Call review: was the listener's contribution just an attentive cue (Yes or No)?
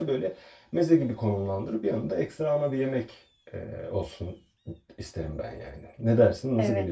No